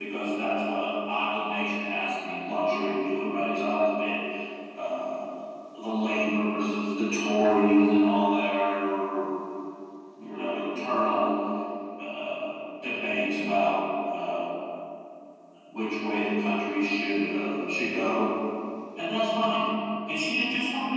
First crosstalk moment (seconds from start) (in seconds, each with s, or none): none